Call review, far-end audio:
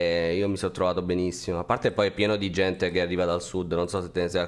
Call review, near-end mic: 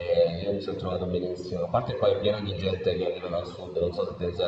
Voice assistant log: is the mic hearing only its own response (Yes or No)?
Yes